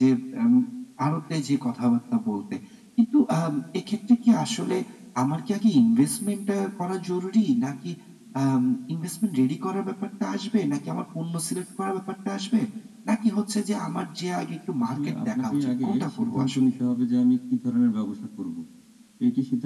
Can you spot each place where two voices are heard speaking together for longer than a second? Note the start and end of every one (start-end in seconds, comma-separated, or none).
14.8-16.6